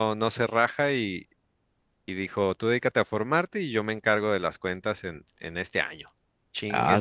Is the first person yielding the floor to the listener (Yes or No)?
Yes